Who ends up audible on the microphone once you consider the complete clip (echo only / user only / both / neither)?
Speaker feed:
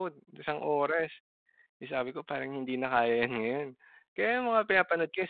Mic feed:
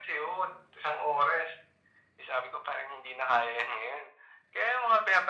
echo only